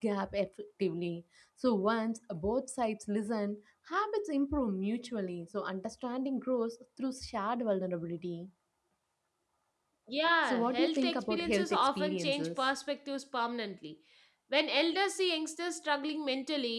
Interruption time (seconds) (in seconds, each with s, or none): 10.4 s